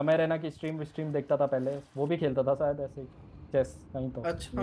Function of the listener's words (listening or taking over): taking over